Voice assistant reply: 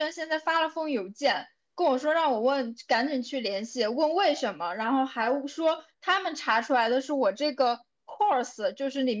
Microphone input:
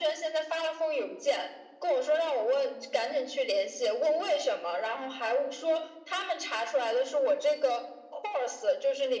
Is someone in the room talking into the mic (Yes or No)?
No